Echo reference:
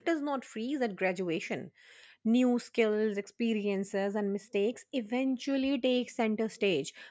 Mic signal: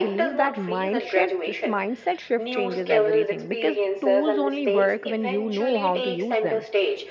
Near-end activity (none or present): present